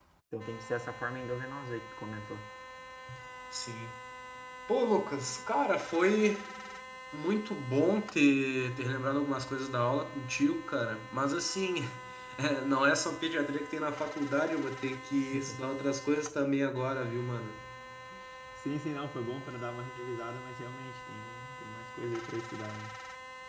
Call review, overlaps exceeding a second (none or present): none